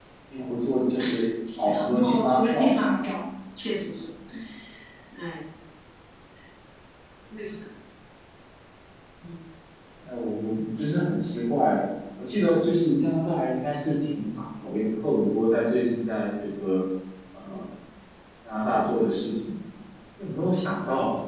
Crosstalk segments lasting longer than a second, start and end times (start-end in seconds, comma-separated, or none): 1.6-3.1